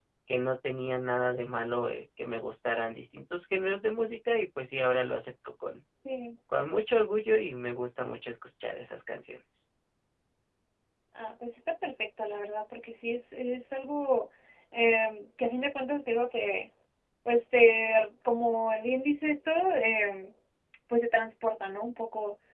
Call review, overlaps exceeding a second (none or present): none